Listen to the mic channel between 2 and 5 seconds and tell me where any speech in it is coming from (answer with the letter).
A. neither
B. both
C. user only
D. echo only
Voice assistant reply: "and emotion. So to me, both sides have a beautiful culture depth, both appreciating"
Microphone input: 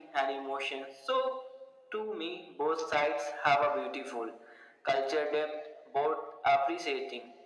D